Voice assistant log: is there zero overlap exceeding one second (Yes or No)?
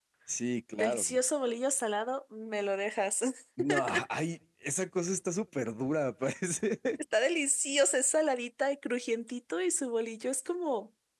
Yes